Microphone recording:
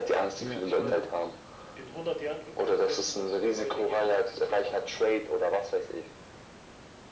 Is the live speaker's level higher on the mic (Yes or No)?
No